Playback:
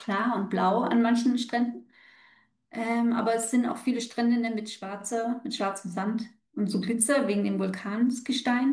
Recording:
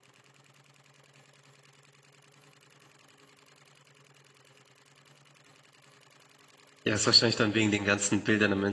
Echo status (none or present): none